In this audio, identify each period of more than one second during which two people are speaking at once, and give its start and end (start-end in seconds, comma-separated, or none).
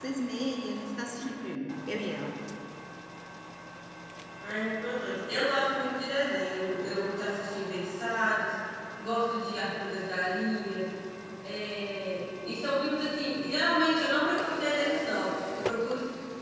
none